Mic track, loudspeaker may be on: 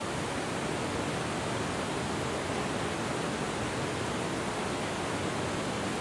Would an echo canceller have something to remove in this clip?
No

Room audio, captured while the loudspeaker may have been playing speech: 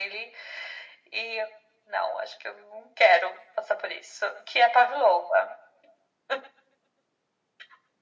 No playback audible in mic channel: No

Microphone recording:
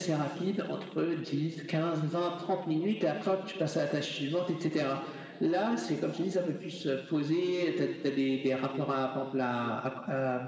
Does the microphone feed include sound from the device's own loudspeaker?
Yes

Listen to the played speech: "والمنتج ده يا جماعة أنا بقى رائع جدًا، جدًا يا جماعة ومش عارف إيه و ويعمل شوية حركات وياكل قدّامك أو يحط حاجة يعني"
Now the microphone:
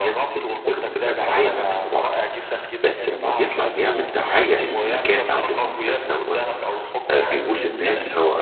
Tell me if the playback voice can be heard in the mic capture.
Yes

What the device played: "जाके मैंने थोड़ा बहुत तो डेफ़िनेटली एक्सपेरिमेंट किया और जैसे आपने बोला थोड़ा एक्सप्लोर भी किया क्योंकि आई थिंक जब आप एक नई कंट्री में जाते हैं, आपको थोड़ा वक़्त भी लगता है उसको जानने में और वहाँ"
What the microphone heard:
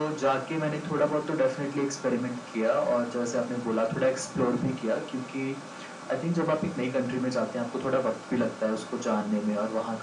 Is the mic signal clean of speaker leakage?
No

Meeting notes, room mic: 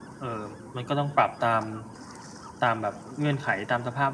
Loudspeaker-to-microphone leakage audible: Yes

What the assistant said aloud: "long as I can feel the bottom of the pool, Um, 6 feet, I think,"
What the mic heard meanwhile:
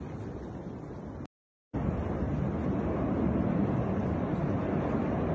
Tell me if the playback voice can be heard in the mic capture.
No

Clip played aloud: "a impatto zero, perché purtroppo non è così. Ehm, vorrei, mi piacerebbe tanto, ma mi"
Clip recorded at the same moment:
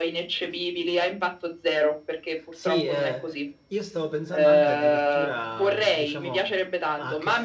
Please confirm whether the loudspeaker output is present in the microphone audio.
Yes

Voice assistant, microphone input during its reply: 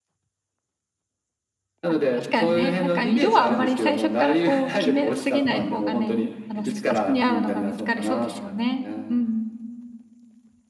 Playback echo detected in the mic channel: Yes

